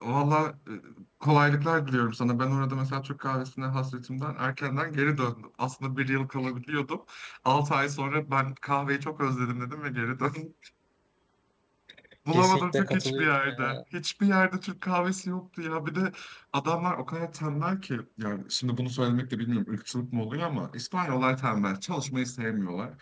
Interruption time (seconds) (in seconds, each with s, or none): 12.3 s